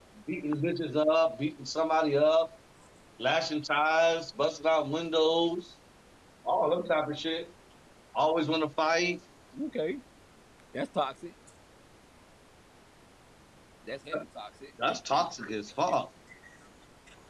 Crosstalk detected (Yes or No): No